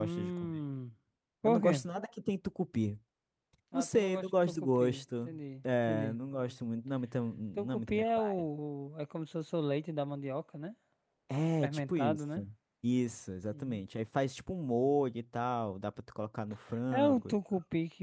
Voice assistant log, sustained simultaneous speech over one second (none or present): present